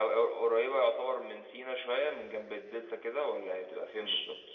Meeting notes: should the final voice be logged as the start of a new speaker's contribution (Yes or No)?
Yes